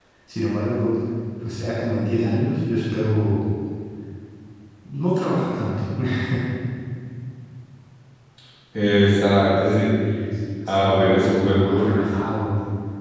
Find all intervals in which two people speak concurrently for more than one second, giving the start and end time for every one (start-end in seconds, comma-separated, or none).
10.7-11.9